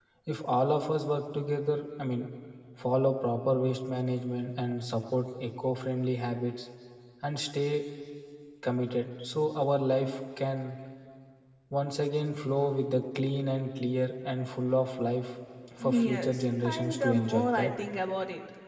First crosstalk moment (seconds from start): 15.8 s

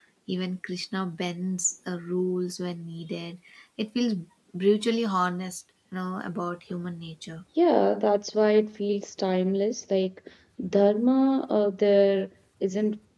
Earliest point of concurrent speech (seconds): none

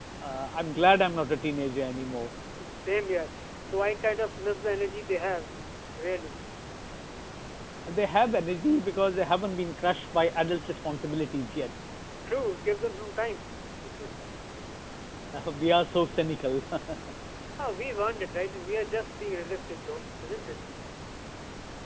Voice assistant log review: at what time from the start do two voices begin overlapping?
none

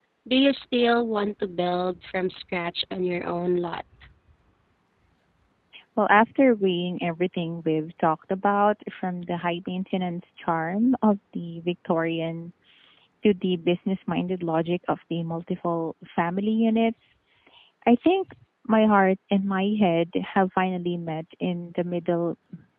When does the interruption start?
none

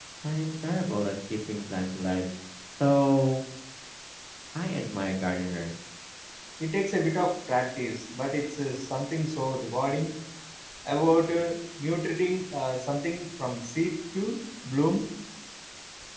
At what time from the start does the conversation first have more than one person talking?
none

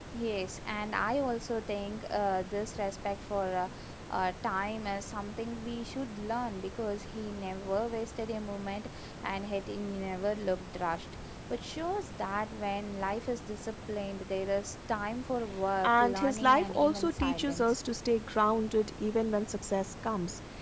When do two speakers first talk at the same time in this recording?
15.8 s

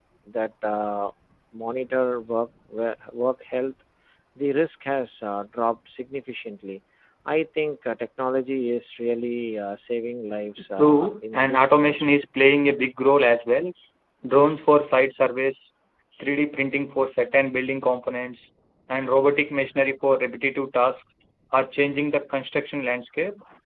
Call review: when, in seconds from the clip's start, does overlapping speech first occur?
10.8 s

